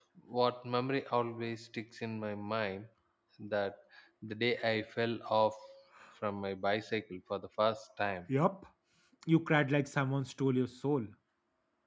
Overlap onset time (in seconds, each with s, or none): none